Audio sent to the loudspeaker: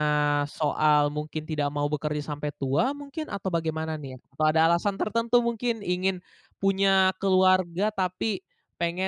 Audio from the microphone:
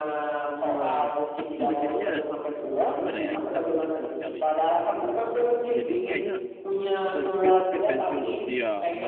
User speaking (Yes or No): Yes